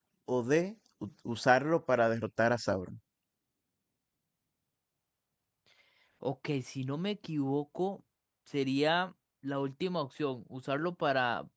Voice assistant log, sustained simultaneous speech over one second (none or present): none